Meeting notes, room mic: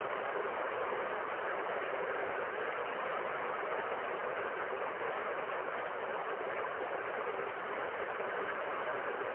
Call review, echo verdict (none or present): none